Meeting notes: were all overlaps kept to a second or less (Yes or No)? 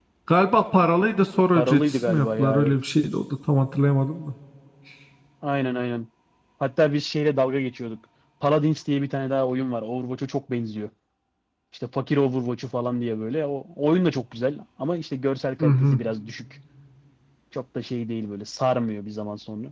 No